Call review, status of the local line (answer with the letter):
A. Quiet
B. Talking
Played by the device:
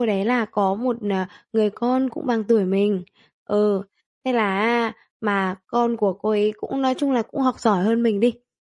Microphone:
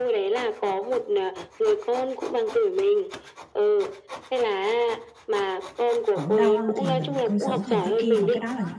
B